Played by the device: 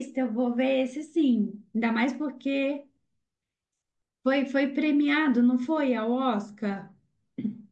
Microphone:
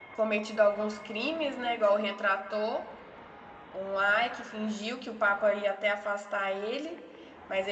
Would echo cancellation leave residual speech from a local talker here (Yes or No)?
Yes